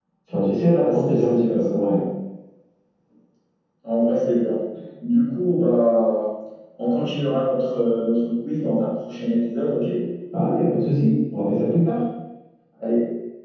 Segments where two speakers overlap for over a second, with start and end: 0.7-1.9

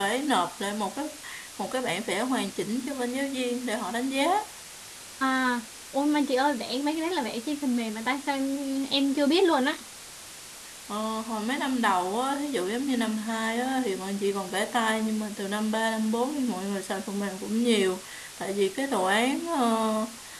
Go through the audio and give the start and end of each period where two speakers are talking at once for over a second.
none

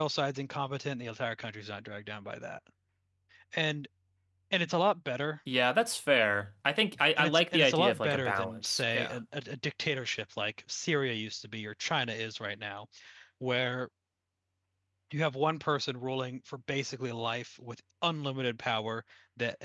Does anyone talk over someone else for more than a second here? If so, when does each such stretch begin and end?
7.2-9.2

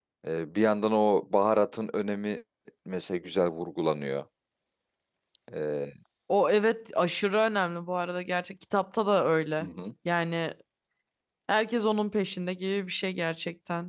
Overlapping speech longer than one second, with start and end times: none

